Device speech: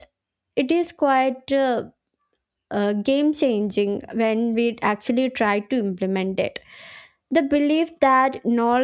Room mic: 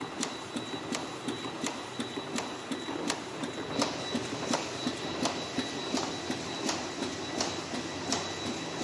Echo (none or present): none